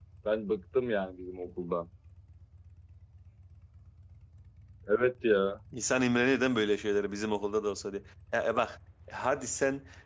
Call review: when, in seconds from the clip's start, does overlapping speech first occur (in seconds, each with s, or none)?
none